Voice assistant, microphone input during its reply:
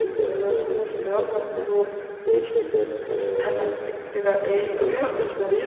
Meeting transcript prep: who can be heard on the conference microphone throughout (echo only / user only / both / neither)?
both